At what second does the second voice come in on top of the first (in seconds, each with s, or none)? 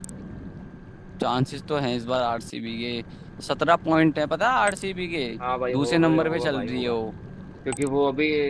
5.7 s